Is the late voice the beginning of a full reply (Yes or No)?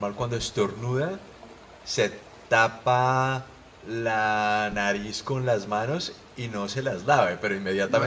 Yes